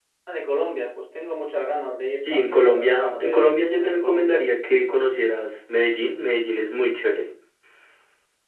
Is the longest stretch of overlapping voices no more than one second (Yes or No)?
No